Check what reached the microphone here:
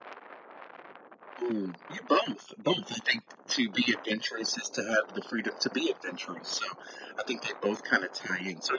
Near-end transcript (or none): none